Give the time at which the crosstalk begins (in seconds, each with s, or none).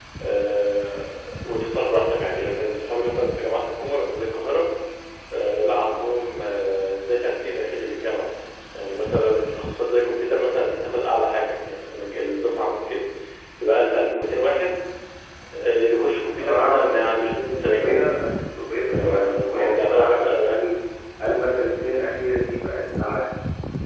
16.3 s